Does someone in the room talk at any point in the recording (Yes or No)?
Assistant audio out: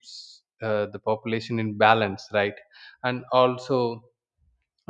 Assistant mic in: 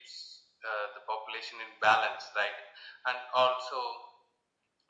No